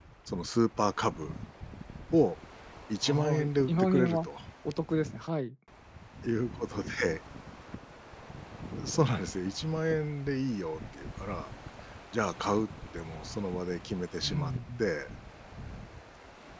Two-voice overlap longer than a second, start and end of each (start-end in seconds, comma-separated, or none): 3.0-4.2